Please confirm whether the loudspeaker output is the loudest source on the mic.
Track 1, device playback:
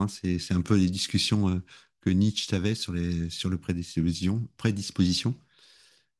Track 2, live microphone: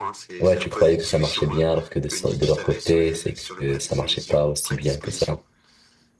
No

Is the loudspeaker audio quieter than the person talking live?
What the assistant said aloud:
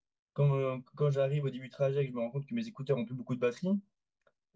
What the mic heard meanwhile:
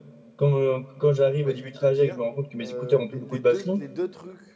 No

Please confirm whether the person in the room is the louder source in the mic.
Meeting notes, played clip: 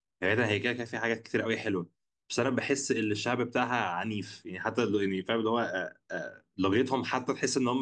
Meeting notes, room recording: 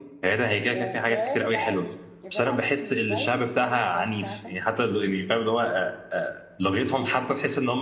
No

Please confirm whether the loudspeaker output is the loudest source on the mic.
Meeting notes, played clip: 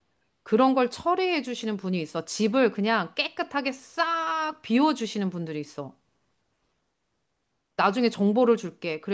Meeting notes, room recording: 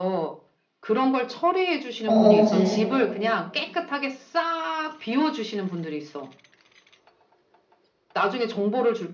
No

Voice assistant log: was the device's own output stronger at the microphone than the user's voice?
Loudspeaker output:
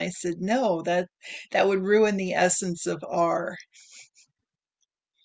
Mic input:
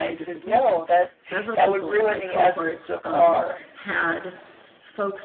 Yes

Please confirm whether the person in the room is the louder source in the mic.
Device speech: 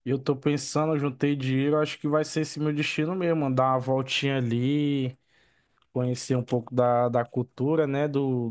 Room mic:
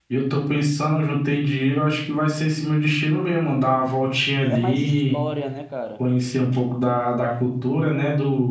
No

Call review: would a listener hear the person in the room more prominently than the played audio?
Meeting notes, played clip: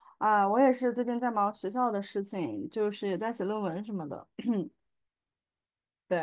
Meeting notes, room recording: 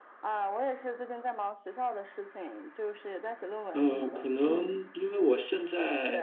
Yes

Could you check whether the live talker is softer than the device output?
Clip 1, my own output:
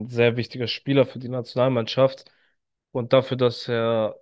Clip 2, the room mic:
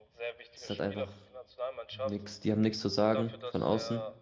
No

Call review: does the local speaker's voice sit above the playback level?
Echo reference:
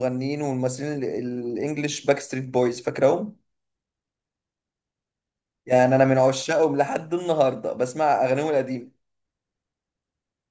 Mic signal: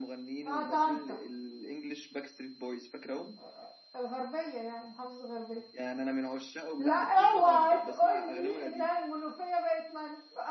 Yes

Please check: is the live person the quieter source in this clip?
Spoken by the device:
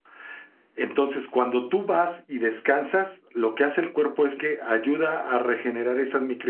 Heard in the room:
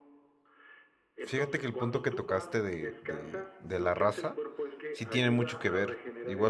No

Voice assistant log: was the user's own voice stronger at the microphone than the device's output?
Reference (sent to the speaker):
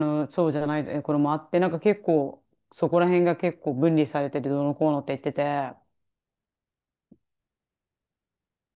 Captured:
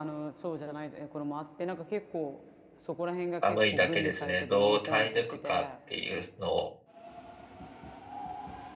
Yes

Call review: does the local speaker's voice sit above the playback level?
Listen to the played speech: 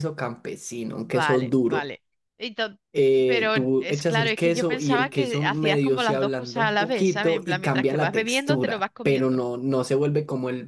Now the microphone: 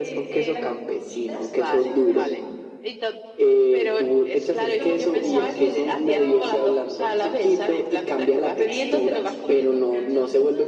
No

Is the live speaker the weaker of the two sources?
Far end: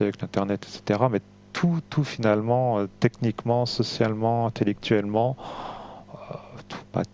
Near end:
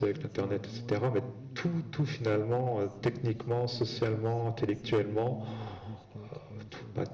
Yes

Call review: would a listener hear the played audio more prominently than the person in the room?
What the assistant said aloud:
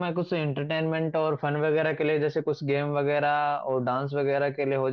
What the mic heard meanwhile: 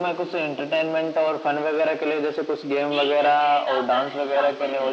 Yes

